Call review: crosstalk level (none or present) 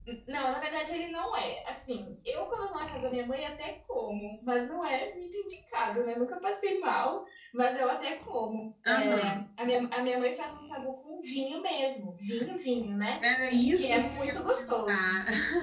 present